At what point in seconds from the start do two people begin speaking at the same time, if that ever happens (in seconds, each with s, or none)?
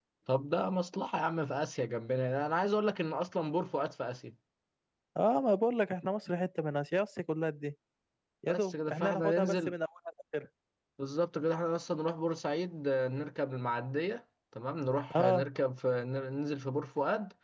8.5 s